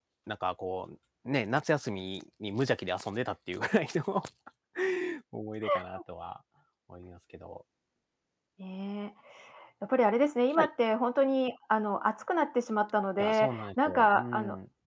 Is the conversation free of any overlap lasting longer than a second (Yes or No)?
No